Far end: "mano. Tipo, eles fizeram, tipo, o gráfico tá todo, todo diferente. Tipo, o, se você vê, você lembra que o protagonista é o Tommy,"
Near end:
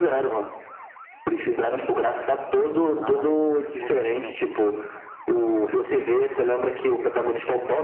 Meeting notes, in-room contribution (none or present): present